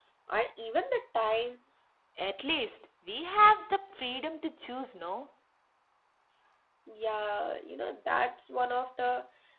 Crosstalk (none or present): none